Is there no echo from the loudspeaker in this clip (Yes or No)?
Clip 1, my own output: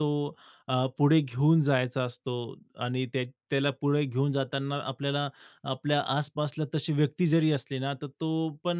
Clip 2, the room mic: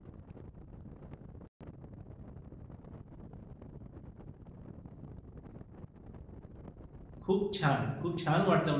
Yes